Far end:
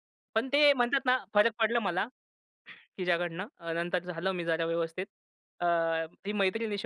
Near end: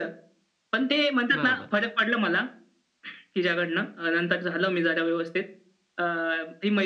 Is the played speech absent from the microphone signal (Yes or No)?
No